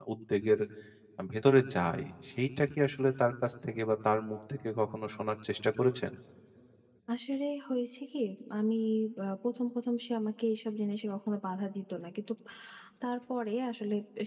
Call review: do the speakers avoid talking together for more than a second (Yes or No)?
Yes